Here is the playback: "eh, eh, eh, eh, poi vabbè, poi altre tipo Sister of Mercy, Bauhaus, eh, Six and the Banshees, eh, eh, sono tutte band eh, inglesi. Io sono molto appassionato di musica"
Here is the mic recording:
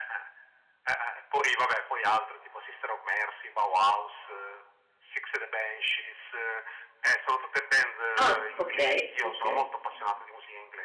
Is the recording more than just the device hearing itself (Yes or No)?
Yes